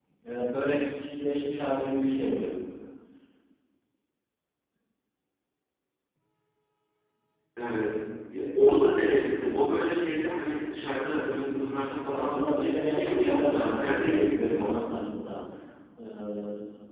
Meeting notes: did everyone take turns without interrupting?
No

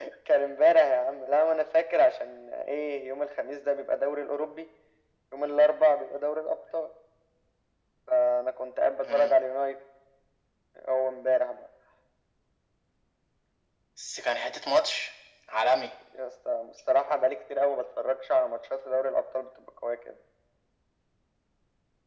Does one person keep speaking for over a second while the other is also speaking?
No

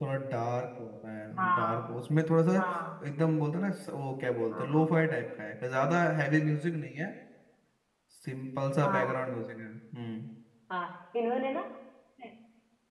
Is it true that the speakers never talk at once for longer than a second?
Yes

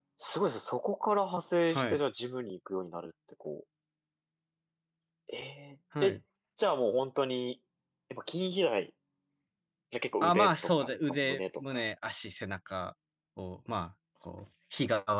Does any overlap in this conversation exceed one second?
Yes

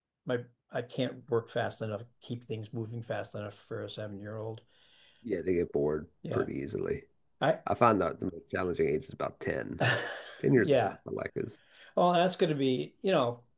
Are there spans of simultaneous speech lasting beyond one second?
No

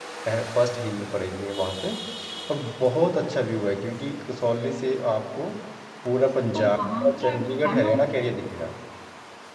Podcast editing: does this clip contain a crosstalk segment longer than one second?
Yes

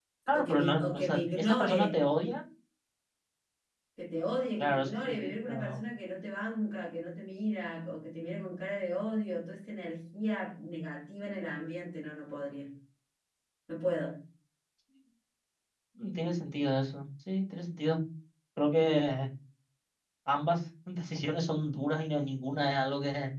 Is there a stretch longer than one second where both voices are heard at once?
Yes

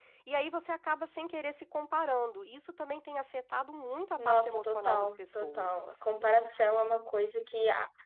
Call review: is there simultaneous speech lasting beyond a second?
Yes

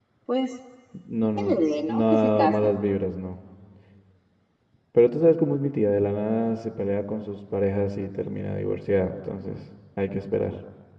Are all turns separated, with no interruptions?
No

